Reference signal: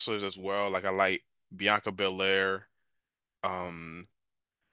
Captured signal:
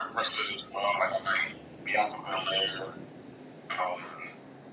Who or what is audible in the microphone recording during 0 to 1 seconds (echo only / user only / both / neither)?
echo only